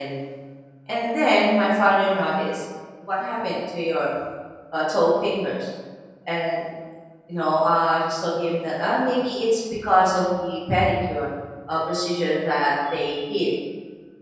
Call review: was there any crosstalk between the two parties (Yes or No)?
No